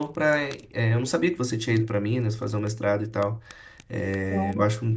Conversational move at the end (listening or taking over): listening